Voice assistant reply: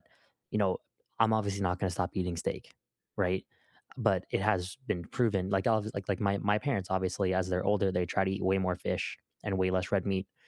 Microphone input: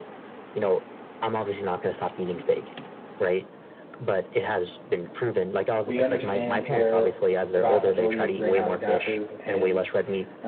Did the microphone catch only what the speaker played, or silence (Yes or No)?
No